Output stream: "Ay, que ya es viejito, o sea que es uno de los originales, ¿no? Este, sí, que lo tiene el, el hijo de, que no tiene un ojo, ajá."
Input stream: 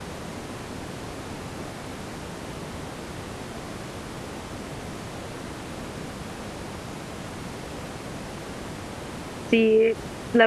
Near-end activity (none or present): present